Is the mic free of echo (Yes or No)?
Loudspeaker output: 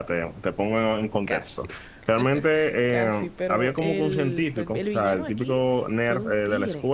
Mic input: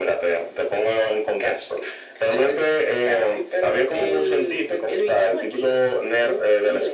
No